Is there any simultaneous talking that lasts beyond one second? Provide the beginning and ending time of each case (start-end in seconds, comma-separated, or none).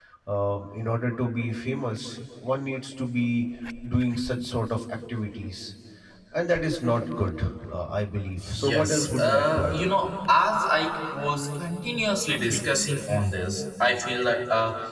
8.5-9.9